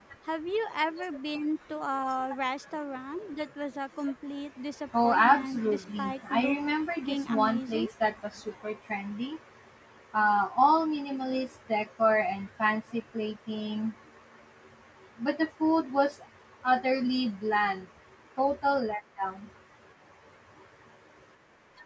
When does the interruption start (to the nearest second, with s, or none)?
5 s